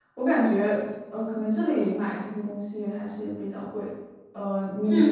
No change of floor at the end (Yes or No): No